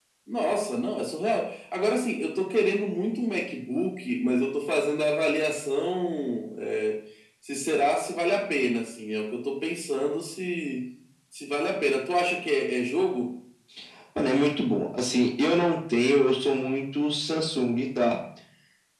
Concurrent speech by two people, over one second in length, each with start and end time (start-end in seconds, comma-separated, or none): none